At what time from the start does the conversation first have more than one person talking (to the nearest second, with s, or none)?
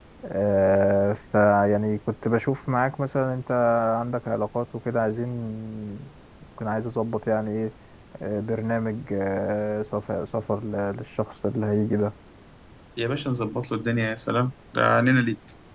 none